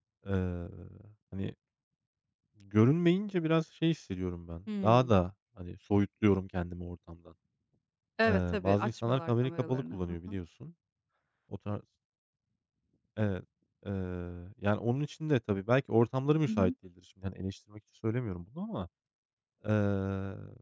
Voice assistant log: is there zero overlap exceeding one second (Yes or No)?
No